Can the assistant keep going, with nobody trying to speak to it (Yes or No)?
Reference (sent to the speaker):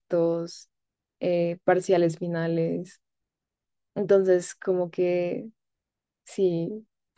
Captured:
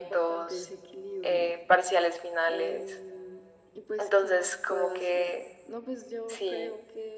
No